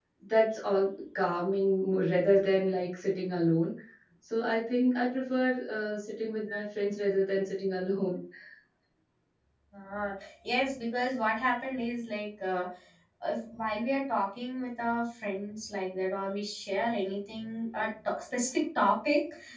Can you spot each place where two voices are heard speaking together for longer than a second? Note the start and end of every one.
none

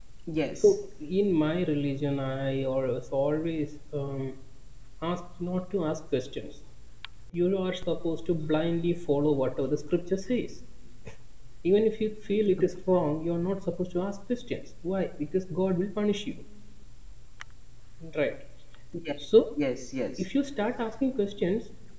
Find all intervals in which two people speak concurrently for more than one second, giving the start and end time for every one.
none

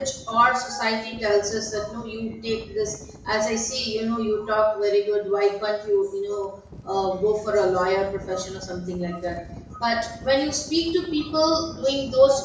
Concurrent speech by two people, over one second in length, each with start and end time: none

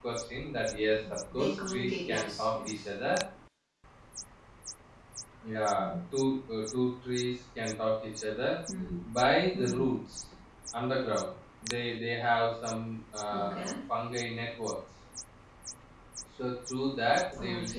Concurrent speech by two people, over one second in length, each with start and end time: 1.3-2.8

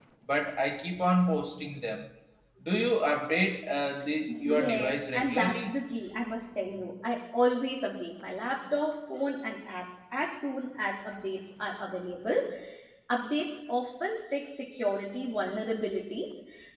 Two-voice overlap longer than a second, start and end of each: 4.3-5.8

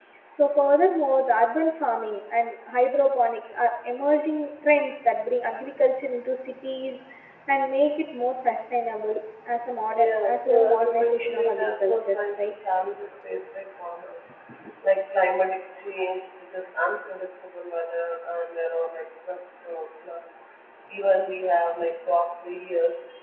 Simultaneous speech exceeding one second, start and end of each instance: 10.0-12.5

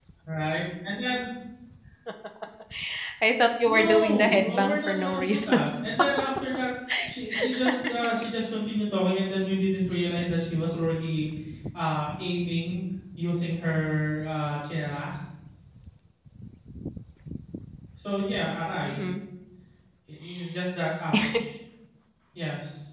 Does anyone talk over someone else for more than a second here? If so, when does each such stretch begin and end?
3.7-5.5

